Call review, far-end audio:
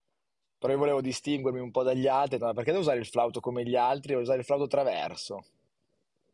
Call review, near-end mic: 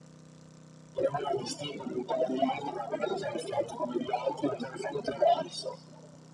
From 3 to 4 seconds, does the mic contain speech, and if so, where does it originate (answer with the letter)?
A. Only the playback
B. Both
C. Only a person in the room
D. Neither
A